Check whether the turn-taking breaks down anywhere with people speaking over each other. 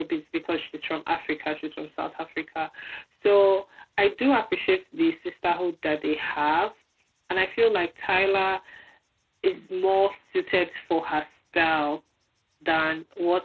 No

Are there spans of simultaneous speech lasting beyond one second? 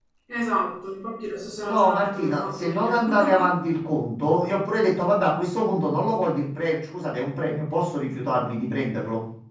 Yes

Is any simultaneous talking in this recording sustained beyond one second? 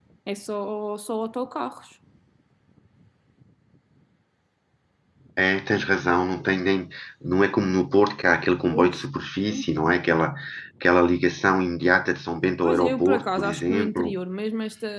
Yes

